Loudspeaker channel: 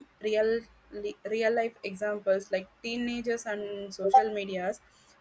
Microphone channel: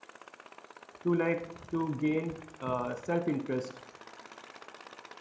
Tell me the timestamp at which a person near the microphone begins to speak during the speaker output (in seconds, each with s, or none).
1.0 s